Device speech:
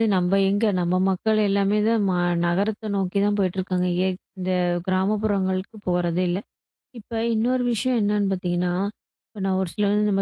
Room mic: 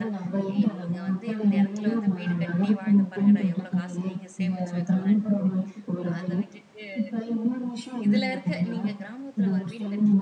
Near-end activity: present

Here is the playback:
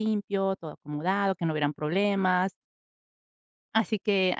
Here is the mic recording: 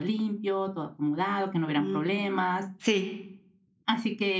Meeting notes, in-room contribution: present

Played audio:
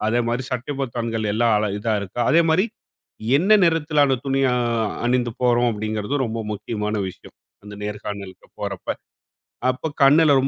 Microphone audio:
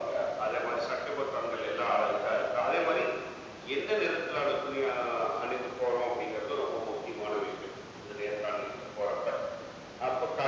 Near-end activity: none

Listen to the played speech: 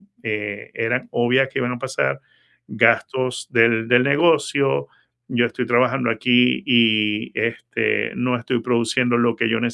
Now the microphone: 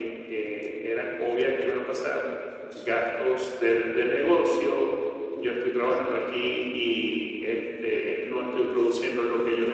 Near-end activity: none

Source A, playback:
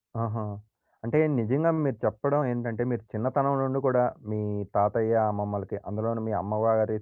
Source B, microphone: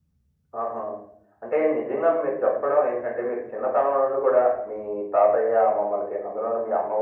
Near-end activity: none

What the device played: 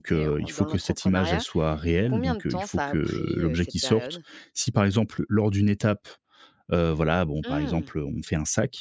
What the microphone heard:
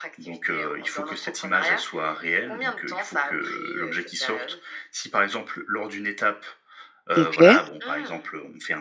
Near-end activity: present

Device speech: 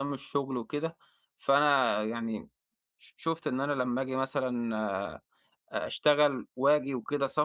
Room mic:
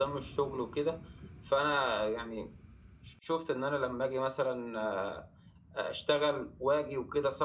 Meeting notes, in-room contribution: none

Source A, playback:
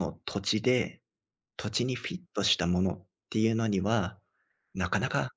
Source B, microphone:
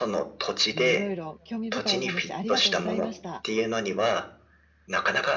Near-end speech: present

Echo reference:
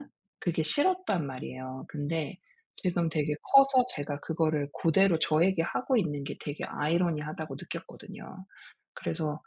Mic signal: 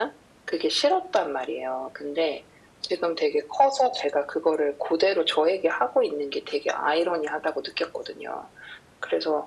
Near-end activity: none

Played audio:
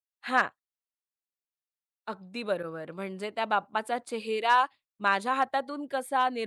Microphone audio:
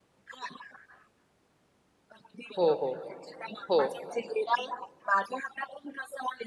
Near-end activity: present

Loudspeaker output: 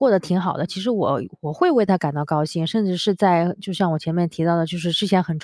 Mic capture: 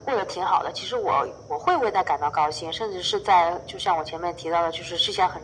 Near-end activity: none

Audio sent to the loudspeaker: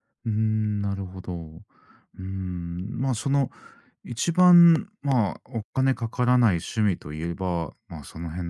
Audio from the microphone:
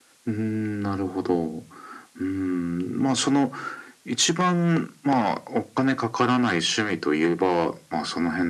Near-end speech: none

